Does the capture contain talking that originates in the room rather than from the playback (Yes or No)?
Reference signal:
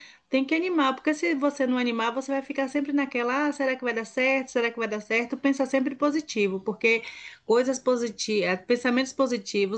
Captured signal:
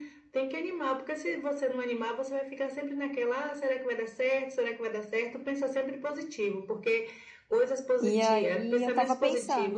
Yes